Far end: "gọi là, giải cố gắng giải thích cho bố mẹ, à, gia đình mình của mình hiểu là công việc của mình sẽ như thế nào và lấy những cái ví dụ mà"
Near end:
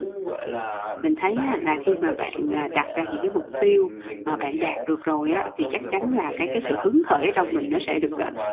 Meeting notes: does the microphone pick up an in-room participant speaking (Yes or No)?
Yes